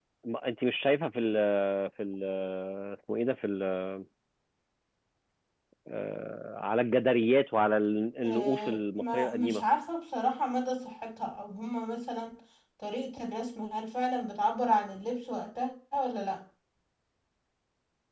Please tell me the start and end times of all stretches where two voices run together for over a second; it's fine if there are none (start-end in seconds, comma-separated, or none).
8.2-9.6